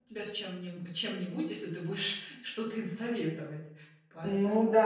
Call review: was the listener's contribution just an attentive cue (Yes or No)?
No